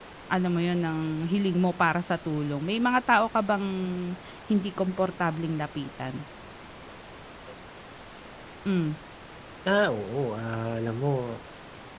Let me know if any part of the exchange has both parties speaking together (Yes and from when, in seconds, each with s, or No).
No